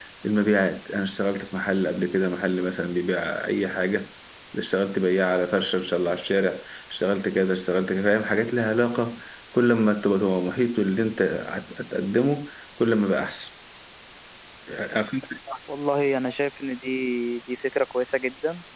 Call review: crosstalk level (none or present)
none